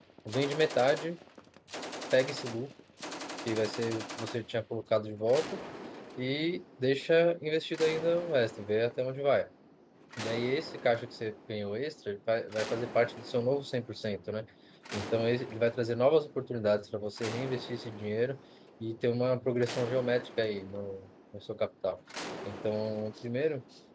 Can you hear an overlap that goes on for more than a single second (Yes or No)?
No